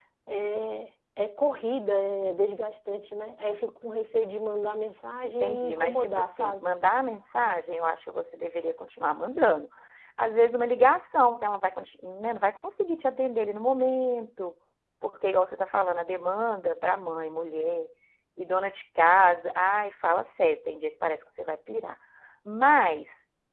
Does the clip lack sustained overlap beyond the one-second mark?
No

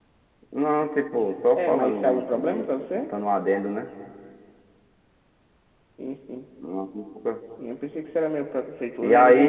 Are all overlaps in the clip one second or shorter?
No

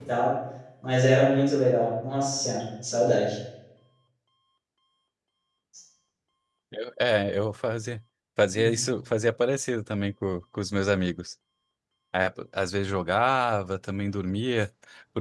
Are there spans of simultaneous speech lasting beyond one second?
No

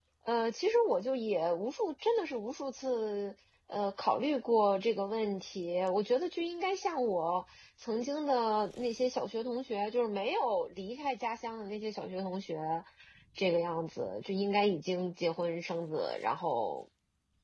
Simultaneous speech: No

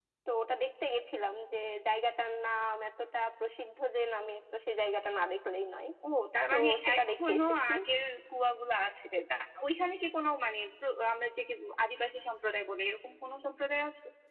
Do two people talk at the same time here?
Yes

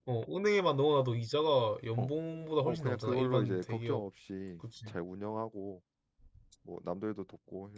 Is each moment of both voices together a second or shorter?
No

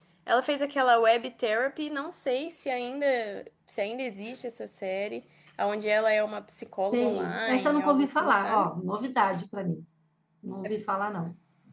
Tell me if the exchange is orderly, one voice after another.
No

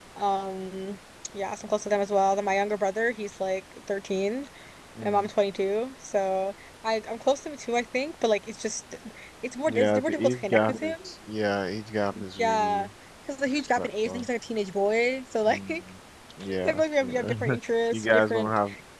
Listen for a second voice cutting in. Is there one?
Yes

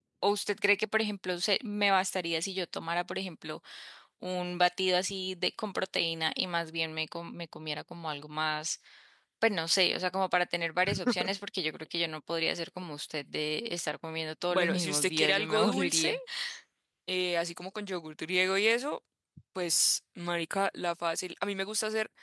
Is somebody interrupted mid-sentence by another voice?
Yes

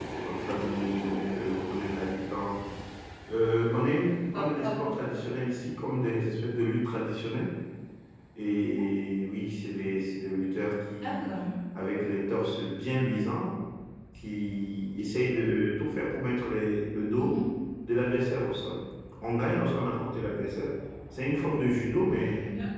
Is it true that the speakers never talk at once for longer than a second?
Yes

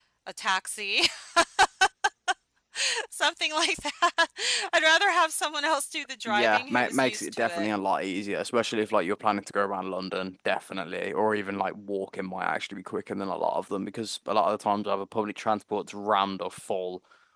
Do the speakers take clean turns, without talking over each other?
No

